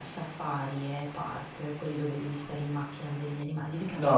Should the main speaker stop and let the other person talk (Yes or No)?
Yes